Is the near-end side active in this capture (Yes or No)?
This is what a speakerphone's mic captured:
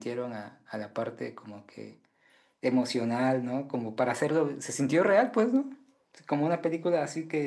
No